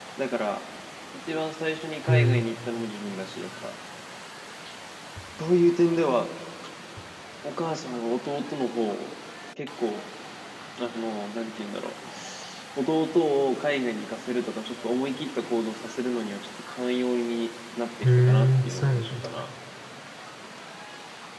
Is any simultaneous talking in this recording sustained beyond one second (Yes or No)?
Yes